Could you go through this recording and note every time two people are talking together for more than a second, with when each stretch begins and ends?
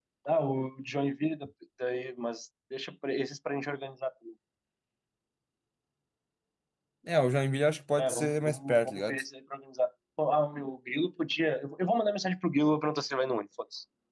8.0-9.2

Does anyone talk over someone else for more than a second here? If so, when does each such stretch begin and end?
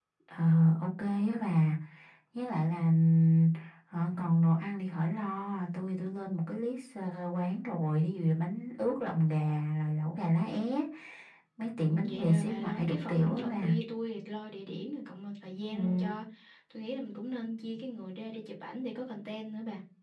11.9-13.7

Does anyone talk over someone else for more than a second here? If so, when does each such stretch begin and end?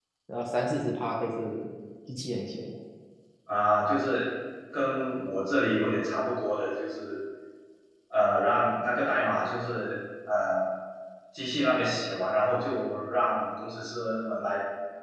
none

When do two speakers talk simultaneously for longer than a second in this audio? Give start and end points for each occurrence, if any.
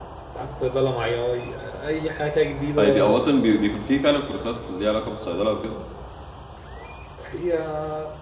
none

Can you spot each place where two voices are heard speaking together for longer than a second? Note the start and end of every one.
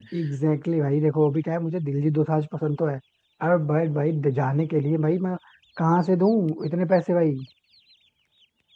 none

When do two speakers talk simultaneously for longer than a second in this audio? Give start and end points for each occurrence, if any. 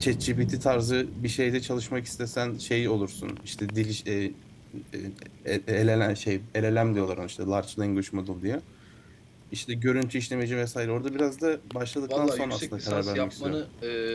12.1-13.6

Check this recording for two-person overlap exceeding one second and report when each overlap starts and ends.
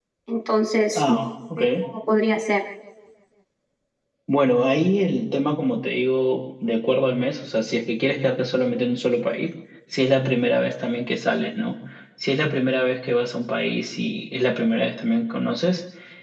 none

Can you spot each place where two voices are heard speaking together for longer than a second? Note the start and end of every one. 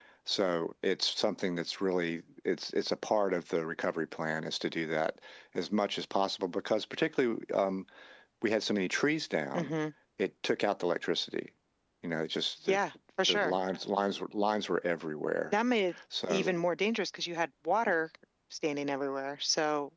none

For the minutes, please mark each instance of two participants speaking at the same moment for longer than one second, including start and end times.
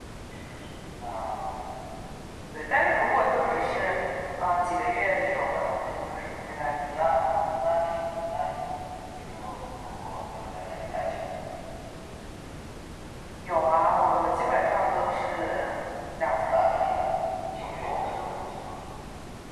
none

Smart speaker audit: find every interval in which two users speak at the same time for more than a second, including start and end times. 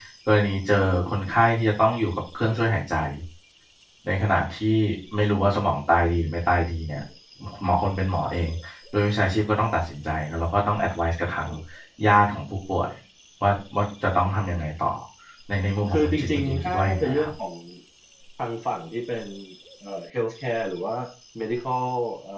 15.9-17.3

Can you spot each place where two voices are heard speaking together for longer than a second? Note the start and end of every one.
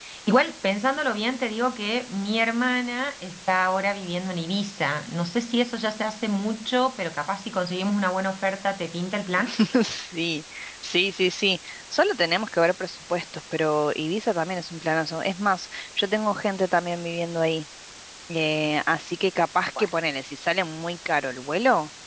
none

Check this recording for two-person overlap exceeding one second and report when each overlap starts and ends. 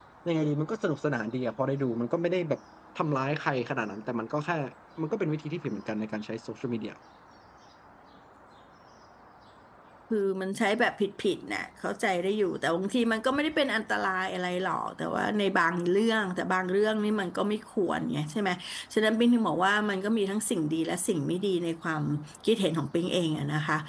none

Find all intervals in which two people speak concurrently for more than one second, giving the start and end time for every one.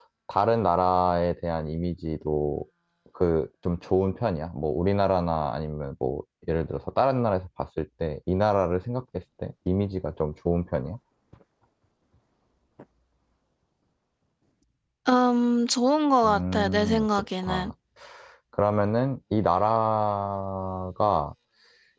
16.2-17.7

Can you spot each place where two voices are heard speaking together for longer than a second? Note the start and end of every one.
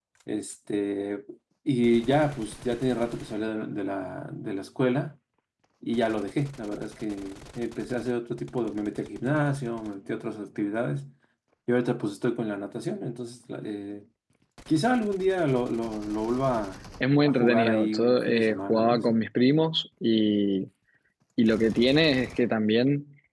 17.2-19.1

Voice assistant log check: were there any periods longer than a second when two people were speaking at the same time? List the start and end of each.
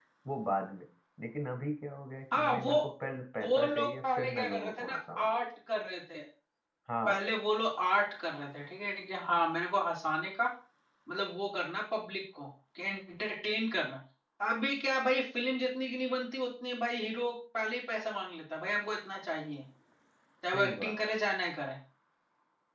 3.4-5.3

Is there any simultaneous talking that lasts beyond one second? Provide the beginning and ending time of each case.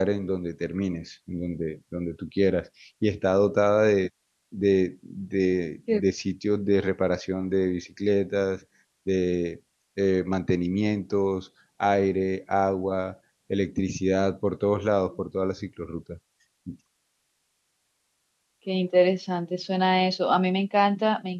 none

